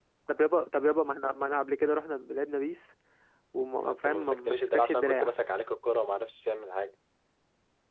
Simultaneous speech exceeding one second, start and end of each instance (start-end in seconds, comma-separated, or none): 3.8-5.3